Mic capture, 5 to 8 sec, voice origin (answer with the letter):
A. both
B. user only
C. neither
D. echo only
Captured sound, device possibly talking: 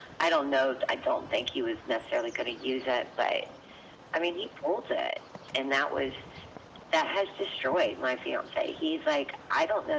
D